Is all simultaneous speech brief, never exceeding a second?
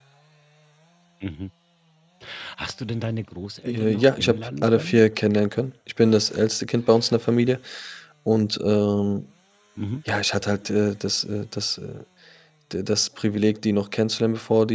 No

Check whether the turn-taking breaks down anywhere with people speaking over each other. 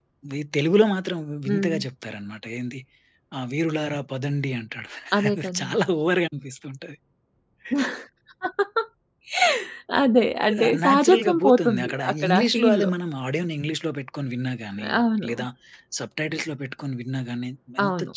Yes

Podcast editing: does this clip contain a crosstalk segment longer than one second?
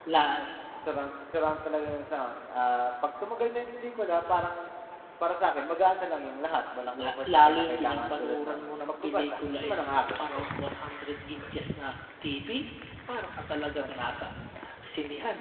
Yes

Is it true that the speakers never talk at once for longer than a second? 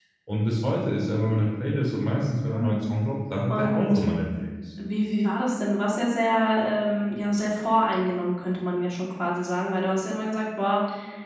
Yes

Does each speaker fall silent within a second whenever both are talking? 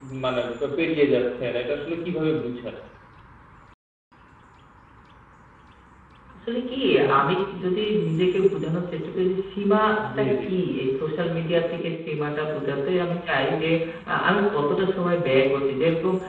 Yes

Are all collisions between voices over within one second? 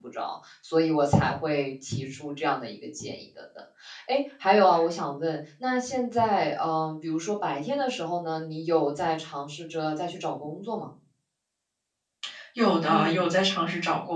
Yes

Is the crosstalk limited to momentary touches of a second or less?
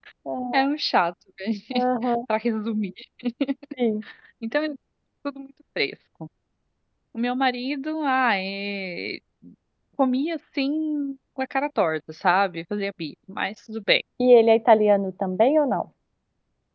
Yes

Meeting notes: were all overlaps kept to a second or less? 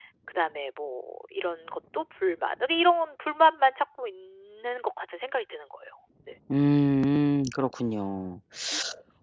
Yes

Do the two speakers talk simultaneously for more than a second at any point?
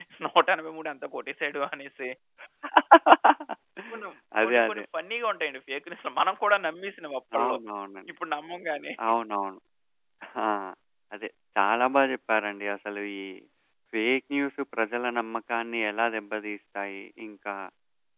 No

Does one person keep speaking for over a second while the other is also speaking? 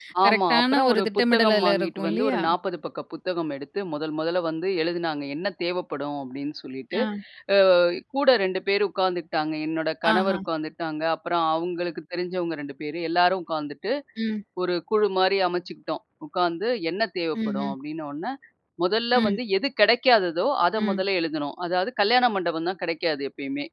Yes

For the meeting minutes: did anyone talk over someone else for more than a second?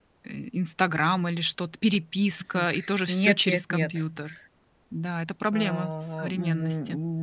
Yes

